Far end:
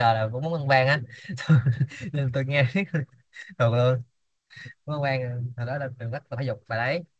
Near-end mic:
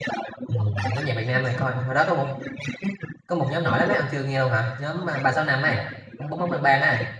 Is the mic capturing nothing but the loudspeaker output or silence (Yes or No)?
No